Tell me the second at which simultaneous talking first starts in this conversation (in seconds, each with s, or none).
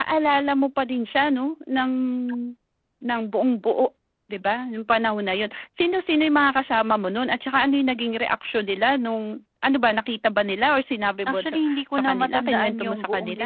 11.3 s